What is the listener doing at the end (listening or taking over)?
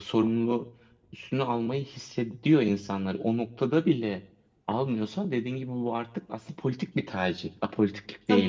taking over